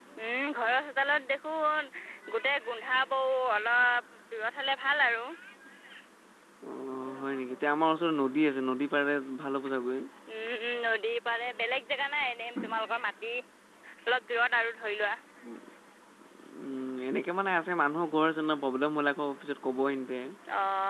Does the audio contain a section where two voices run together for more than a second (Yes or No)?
No